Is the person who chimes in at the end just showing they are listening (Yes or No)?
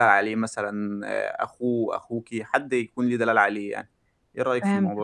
No